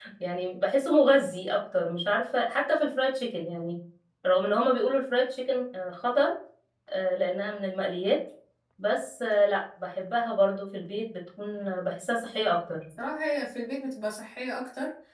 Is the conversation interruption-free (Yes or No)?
Yes